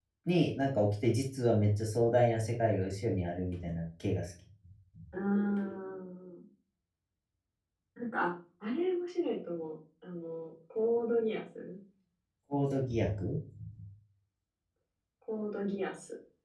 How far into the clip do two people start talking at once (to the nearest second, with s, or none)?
none